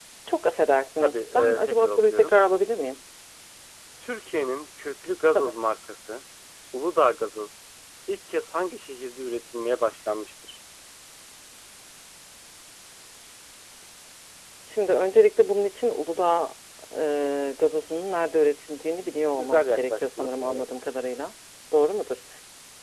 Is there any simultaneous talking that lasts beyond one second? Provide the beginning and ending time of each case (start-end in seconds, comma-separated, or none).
1.0-2.3, 19.4-20.7